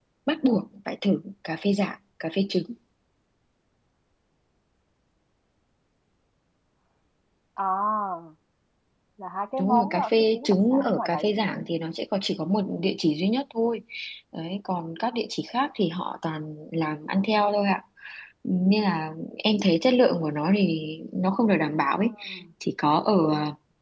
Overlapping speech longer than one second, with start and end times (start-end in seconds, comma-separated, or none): 9.6-11.6